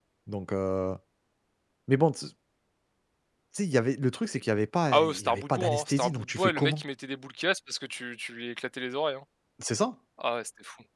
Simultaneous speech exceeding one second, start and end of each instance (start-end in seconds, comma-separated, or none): 4.9-6.8